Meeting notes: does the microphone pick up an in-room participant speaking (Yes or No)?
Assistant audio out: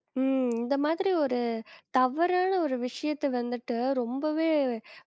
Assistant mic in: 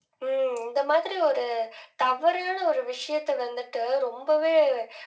No